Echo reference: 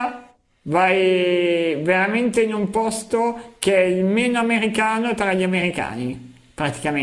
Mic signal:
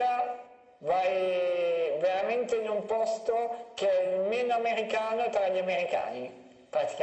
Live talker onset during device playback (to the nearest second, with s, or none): none